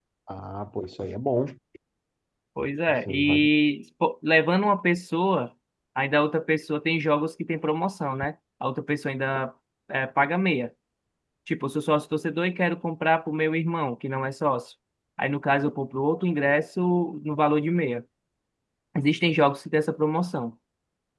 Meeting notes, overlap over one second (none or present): none